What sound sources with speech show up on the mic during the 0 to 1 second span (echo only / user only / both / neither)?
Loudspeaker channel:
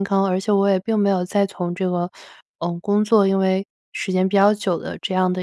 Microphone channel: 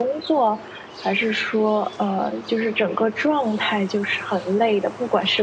user only